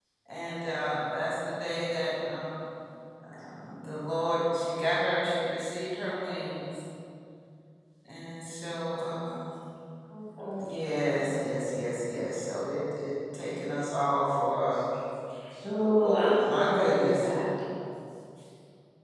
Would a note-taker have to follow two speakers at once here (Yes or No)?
Yes